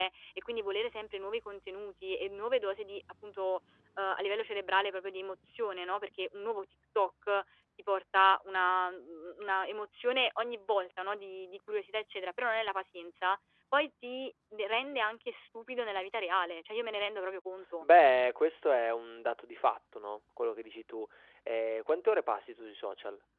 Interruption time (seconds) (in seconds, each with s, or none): none